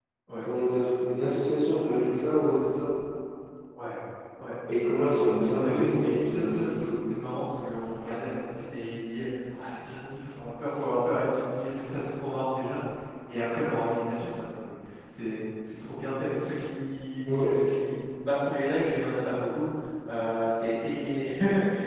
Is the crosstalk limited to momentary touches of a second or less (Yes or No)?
No